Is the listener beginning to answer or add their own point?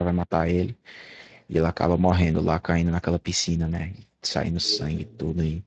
No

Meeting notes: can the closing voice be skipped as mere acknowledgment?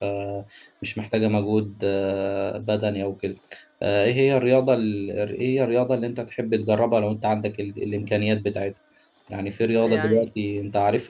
Yes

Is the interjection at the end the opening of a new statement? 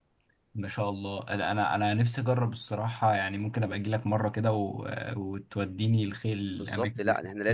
Yes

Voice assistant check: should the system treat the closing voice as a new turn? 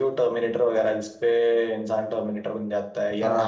Yes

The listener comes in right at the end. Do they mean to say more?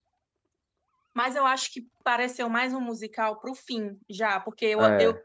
No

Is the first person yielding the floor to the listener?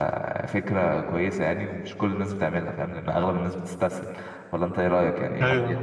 Yes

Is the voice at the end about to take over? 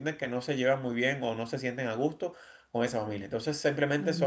No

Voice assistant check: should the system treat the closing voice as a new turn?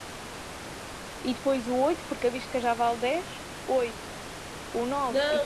Yes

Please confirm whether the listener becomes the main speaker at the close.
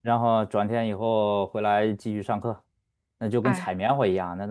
No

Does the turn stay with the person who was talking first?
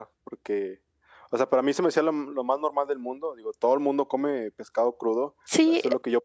Yes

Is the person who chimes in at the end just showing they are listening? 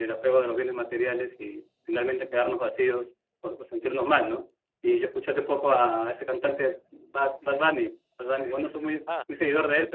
Yes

